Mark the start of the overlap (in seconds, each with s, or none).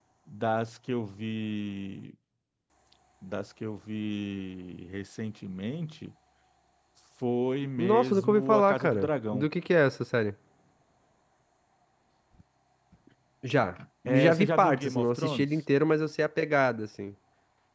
7.8 s